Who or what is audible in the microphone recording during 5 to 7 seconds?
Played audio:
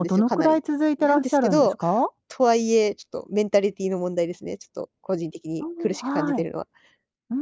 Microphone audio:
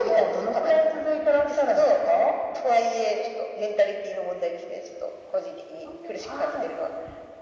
echo only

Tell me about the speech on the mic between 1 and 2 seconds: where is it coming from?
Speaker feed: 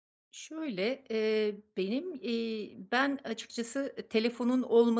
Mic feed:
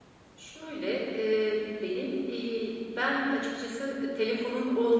echo only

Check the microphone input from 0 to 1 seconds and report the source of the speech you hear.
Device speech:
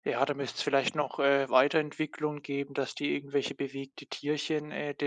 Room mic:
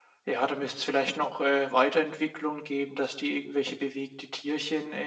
echo only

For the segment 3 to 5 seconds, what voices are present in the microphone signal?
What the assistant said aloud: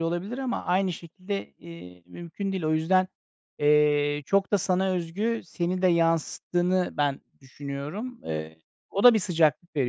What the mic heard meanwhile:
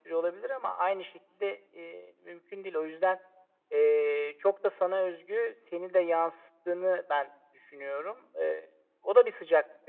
echo only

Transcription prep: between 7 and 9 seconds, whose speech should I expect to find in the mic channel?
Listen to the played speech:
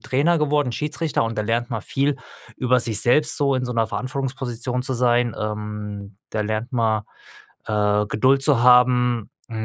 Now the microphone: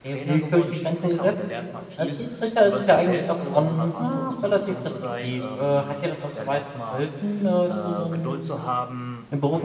both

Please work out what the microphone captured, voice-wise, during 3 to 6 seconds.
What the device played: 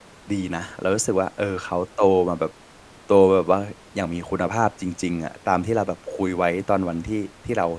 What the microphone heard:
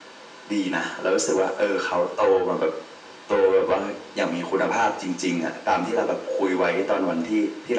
echo only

